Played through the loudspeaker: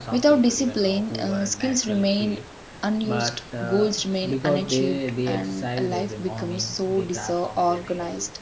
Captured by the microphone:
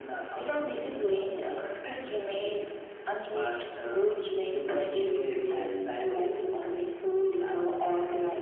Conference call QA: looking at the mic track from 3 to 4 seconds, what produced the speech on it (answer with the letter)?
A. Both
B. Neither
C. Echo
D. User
C